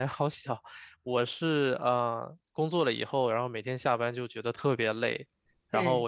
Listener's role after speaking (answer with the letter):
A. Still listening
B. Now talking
A